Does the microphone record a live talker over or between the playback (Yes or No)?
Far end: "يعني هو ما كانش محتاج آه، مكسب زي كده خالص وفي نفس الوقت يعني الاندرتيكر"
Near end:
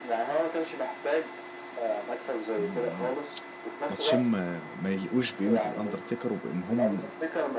Yes